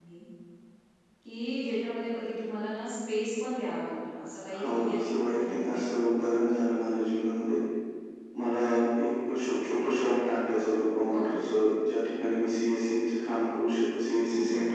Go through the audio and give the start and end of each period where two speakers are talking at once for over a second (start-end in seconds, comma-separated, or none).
4.6-6.1